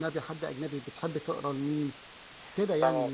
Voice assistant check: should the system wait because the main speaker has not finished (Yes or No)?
No